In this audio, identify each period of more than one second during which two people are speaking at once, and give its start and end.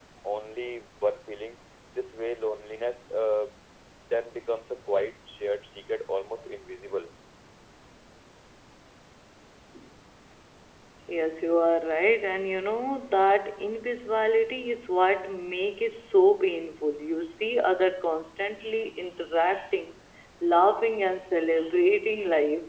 none

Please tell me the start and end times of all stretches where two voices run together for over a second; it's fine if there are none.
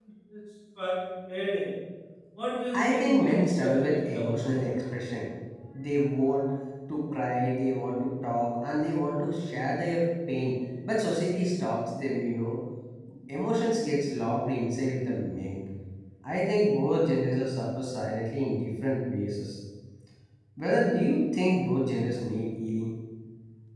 2.7-4.4

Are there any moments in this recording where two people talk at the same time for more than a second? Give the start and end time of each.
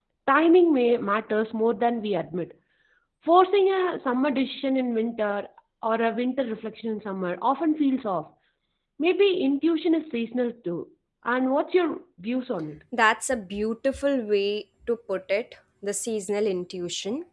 none

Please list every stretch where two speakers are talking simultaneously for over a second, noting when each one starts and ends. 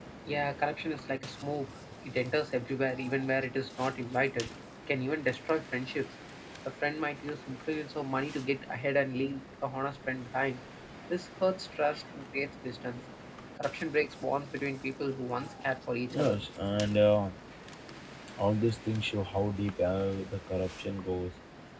none

